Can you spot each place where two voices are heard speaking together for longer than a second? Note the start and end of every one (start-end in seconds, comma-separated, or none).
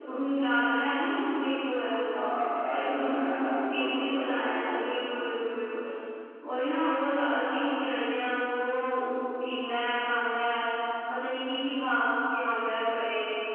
2.7-4.9